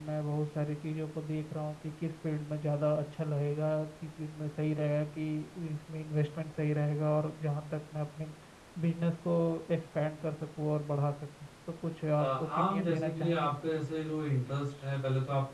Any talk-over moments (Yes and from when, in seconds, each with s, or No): Yes, from 12.2 s